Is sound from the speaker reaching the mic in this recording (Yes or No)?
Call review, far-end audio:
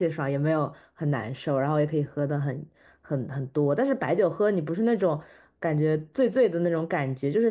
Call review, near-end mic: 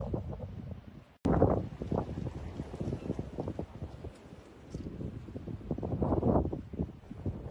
No